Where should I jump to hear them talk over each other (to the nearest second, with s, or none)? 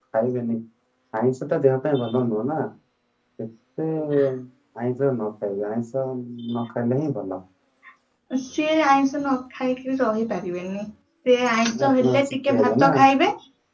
12 s